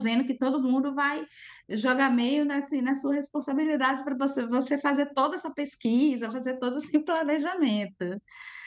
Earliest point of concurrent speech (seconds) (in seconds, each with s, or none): none